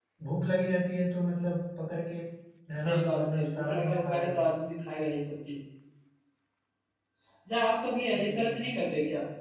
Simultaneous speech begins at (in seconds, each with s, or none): 2.8 s